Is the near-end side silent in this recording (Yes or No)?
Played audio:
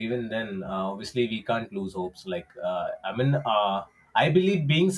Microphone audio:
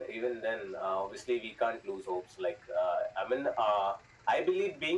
Yes